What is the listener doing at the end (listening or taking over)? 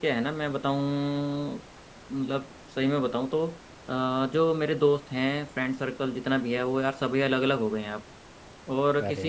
listening